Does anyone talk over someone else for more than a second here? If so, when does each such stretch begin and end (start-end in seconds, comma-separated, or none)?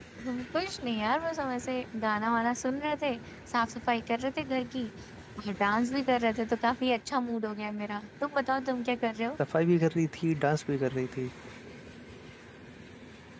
none